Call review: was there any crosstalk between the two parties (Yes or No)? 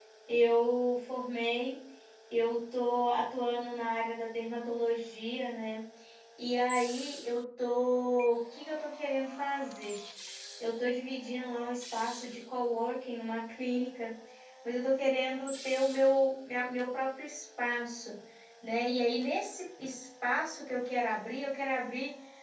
No